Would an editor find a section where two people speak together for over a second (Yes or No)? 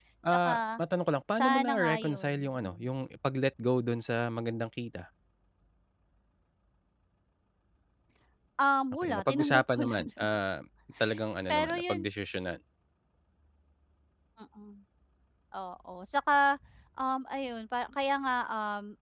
Yes